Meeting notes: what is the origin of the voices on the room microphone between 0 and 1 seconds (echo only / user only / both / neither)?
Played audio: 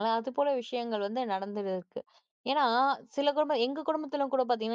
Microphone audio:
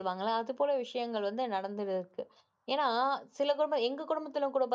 echo only